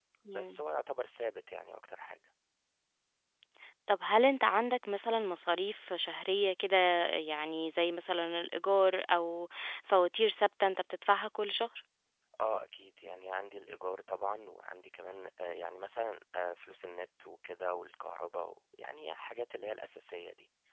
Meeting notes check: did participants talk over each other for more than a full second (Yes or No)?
No